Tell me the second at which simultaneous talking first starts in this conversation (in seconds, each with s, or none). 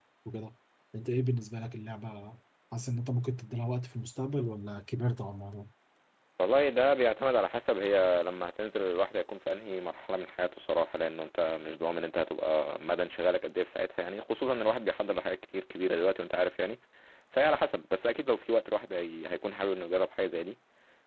none